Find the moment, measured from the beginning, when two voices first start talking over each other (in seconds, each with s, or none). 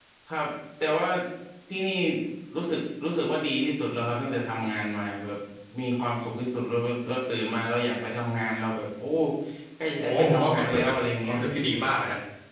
10.0 s